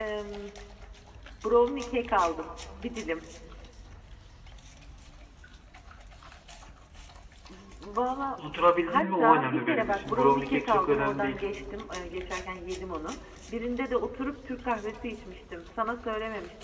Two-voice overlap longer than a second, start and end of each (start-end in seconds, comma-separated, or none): 8.9-11.4